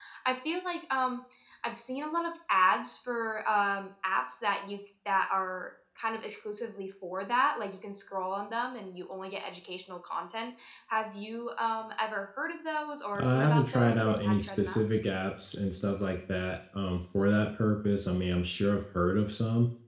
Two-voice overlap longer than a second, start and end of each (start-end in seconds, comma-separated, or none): 13.2-14.8